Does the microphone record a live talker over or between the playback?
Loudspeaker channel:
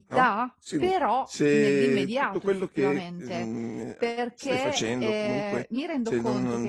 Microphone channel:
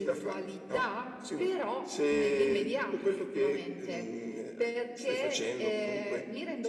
No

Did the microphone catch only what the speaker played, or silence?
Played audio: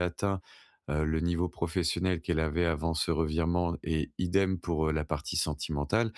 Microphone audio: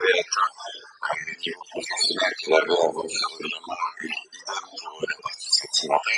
Yes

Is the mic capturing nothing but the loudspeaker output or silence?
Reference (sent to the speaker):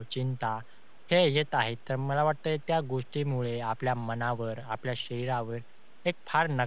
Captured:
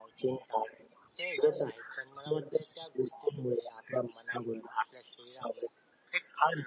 Yes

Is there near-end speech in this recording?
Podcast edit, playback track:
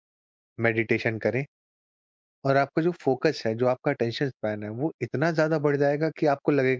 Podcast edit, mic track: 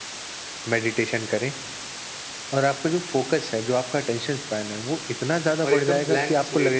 Yes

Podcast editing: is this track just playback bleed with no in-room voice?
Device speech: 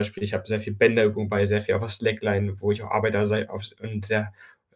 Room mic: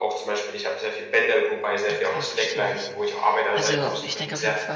No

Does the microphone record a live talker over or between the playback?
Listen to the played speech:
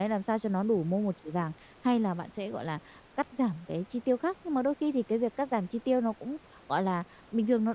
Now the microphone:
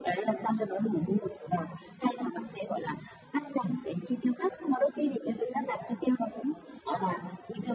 No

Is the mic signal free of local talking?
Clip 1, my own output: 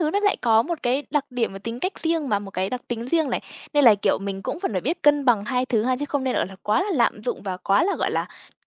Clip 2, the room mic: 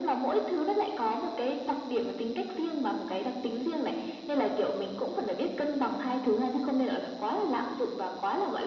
Yes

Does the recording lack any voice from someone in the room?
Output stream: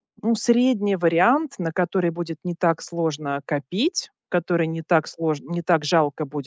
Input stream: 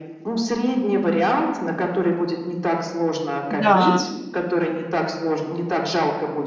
No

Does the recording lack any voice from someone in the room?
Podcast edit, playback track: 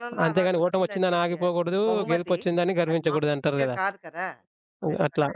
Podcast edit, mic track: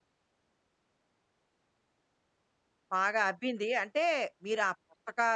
No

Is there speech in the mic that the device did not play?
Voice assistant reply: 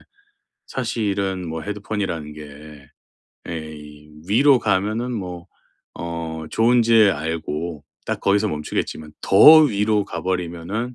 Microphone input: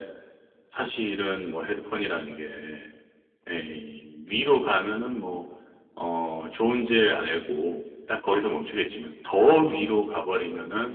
No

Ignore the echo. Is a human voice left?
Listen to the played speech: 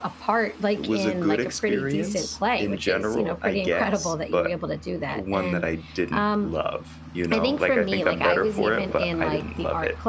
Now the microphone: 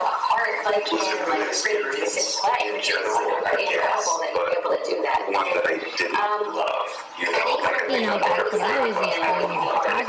Yes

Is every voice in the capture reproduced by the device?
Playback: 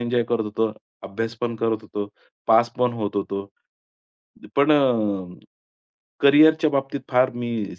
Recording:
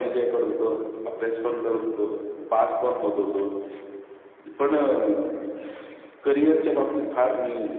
Yes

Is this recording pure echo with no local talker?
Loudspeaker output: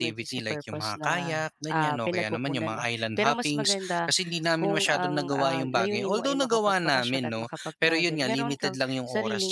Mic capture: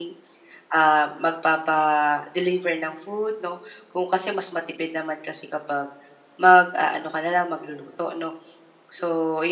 No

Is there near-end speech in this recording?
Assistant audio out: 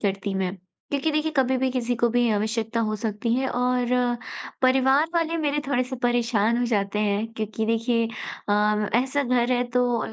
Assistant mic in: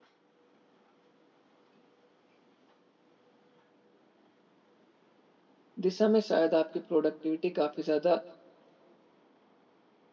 Yes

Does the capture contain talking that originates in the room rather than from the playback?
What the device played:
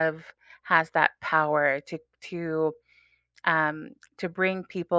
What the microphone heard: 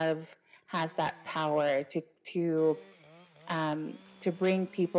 No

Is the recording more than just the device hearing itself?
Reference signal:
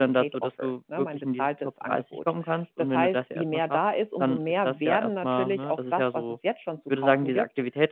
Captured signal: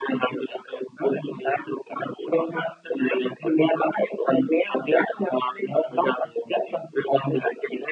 No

